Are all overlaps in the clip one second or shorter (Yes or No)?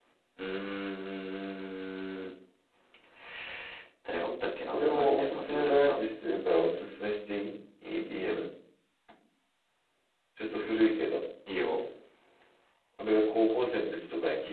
No